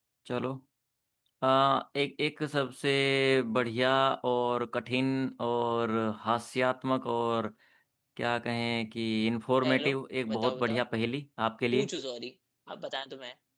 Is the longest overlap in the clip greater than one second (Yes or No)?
No